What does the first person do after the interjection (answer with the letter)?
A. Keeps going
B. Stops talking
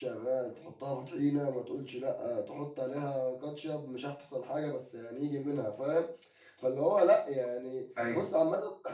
A